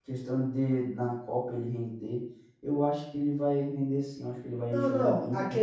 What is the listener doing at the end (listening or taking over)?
taking over